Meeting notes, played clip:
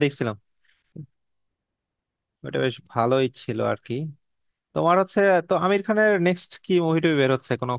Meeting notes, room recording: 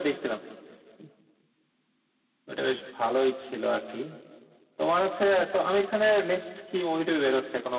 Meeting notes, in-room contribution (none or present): none